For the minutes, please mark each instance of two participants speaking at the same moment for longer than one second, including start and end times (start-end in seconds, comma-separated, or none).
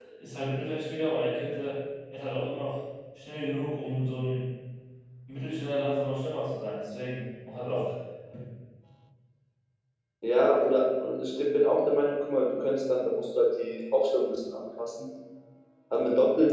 none